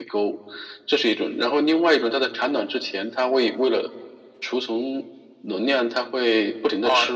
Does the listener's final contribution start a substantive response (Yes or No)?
Yes